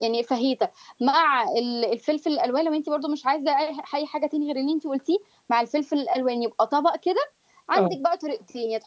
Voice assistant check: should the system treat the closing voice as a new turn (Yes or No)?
No